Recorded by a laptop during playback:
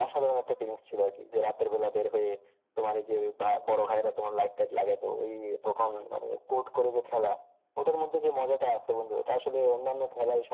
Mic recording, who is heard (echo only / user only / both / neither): echo only